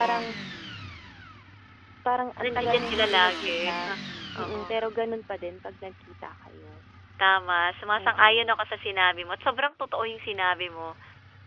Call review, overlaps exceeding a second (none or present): present